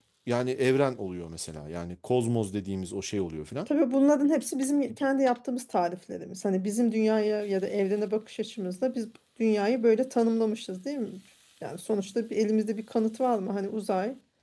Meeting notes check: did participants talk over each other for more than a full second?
No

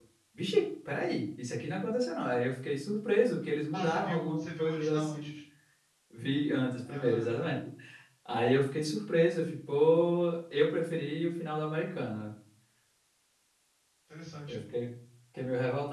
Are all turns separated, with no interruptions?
No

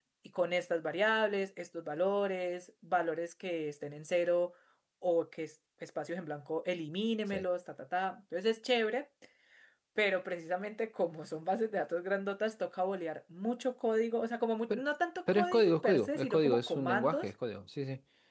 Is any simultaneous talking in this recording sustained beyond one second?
Yes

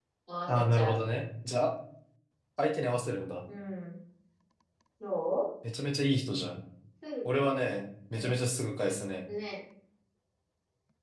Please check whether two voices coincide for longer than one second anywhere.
No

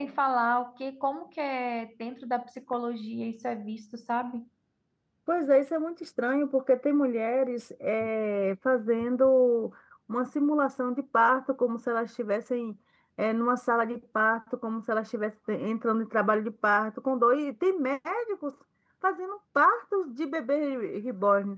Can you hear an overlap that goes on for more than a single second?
No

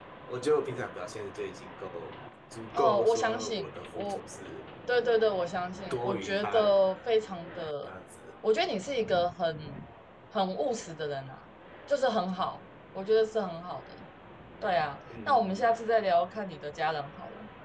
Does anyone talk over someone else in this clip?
Yes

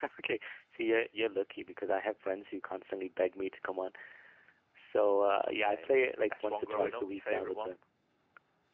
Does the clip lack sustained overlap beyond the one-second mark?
No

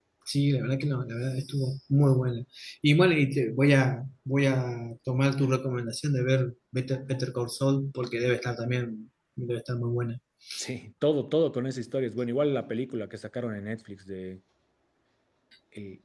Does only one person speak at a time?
Yes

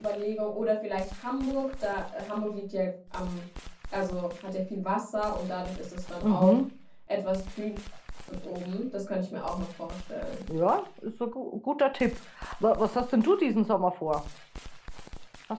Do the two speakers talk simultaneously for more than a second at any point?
No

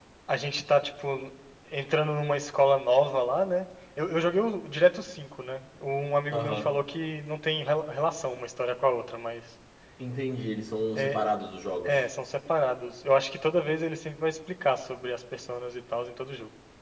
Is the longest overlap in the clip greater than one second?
No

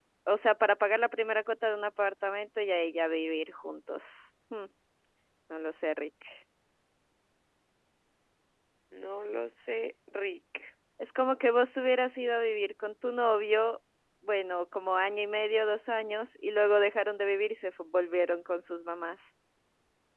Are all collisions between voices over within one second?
Yes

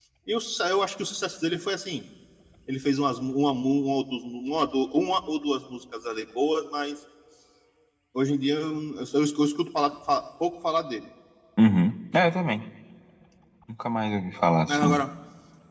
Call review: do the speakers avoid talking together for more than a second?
Yes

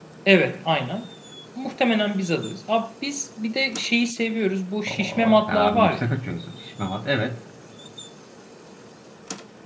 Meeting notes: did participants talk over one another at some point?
Yes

